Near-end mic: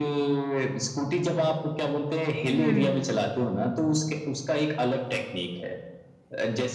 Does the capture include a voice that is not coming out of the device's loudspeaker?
Yes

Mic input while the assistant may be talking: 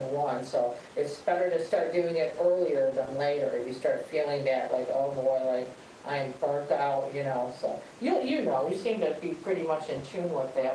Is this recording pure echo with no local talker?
Yes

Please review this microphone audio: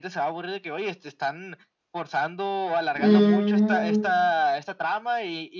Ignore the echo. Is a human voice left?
Yes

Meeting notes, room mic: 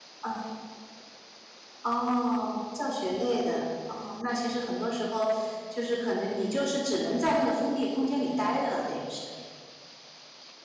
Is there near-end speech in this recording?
Yes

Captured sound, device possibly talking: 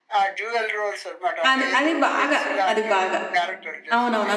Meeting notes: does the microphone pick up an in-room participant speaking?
Yes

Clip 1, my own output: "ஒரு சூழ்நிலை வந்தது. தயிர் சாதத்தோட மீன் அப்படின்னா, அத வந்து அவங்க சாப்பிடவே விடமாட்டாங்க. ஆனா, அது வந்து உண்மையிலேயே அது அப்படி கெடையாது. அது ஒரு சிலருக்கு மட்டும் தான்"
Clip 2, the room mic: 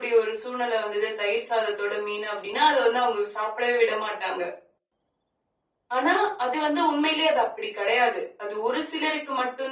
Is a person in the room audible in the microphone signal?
No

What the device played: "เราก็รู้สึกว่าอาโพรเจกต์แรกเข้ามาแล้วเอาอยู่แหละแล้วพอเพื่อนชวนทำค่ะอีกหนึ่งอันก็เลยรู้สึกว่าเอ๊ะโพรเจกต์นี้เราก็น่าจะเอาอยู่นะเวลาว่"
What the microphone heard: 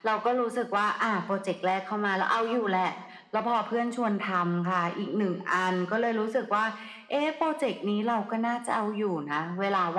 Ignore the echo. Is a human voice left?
No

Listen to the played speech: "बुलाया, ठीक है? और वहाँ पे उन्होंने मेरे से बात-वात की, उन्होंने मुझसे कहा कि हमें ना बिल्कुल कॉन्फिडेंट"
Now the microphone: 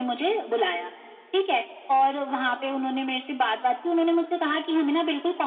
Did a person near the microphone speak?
No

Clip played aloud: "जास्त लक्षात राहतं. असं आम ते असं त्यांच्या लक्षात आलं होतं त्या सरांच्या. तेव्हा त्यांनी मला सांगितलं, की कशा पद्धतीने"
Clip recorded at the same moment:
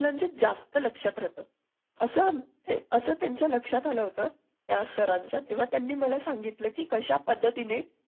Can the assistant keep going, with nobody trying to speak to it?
Yes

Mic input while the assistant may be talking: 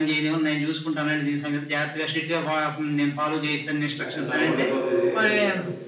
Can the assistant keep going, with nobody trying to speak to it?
No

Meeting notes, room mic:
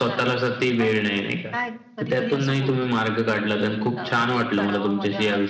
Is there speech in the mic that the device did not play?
Yes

